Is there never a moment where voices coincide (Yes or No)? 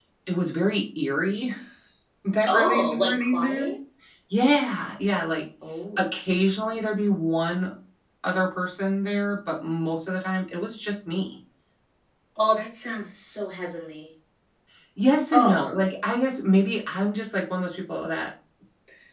No